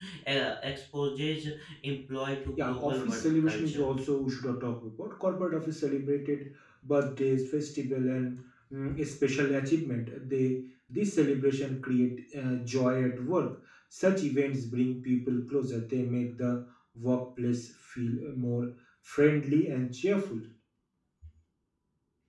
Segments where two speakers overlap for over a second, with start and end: 2.6-3.9

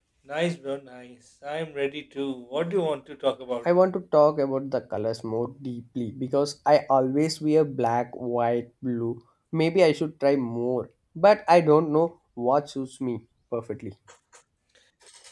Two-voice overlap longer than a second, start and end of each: none

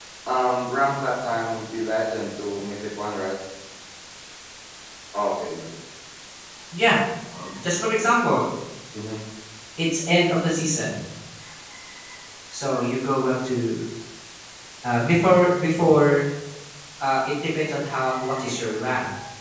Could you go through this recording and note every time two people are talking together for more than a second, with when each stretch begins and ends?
none

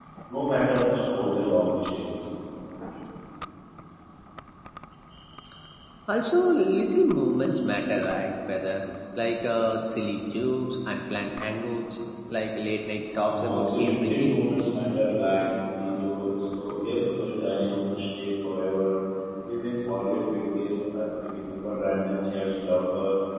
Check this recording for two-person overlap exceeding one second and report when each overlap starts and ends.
13.2-14.4

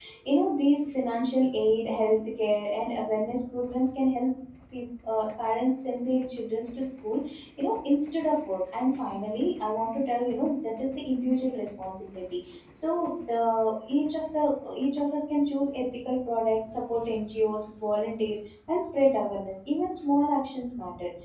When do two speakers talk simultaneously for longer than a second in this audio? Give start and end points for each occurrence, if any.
none

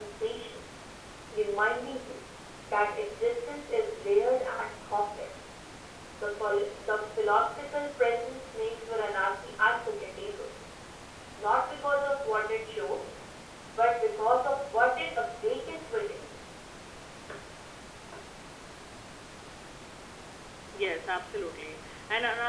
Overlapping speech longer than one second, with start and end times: none

